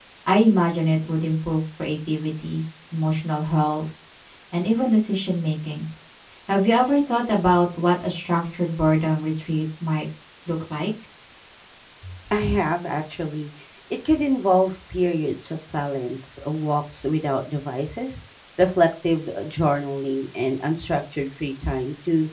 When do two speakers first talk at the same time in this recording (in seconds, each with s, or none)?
none